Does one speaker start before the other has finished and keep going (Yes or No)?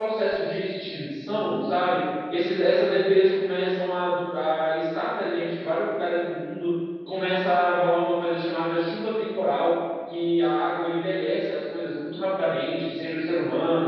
No